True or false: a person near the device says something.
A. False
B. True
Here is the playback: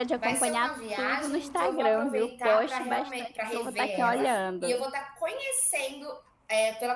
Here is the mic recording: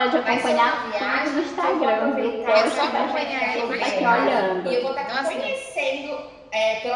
B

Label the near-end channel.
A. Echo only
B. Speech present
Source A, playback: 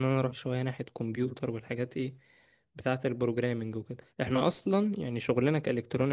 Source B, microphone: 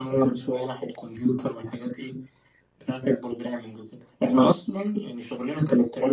A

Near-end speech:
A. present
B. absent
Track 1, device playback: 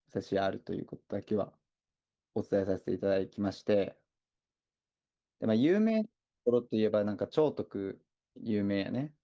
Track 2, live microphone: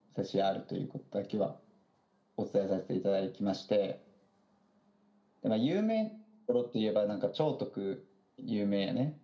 B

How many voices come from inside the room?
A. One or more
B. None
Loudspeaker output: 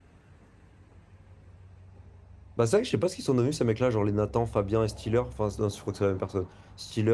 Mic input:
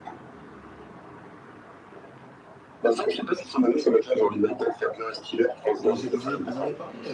A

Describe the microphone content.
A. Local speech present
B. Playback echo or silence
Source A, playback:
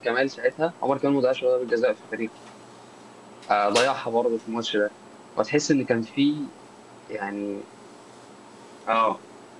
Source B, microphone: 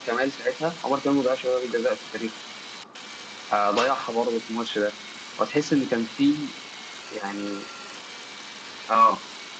B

